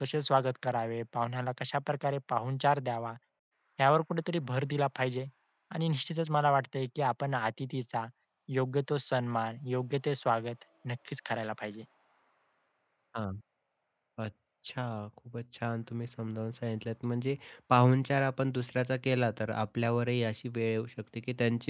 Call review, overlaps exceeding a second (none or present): none